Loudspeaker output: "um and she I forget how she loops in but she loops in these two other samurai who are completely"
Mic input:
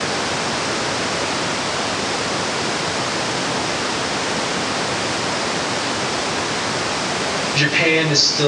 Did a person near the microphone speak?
Yes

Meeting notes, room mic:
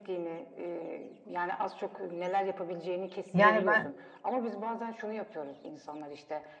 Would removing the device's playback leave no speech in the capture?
No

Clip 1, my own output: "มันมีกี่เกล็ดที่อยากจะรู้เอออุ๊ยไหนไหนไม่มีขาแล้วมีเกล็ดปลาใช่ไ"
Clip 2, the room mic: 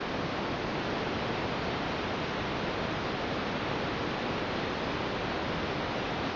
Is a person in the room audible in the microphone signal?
No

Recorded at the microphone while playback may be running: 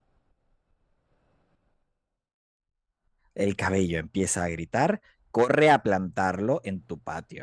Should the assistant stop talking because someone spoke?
Yes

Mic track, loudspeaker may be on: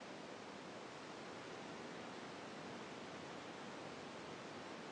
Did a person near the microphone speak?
No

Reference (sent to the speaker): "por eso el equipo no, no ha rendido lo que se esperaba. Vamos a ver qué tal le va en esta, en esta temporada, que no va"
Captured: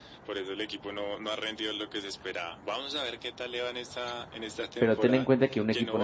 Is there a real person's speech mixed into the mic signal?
Yes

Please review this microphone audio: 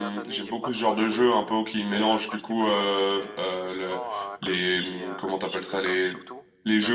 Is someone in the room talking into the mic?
Yes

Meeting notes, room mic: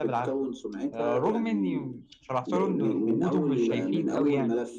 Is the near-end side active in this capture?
Yes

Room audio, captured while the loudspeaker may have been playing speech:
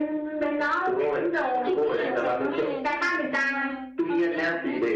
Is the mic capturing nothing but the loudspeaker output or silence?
No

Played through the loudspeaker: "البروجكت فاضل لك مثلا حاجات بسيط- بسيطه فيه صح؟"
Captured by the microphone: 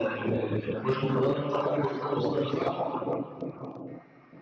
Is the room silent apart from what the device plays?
Yes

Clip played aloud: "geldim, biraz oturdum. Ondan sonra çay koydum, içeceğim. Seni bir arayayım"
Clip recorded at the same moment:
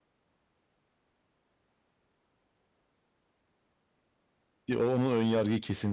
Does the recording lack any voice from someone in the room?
No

